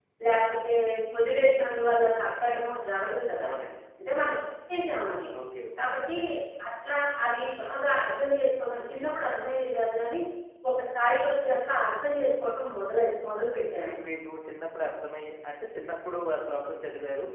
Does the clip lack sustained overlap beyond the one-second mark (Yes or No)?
Yes